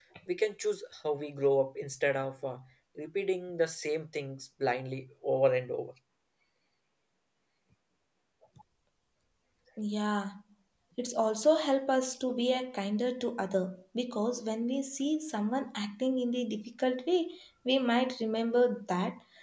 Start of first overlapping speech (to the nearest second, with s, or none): none